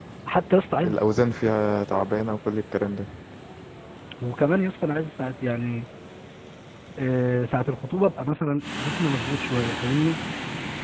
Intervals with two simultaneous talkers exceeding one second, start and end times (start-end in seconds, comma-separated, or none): none